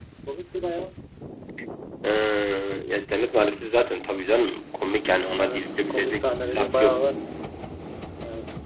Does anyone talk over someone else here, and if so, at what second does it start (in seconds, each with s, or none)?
5.4 s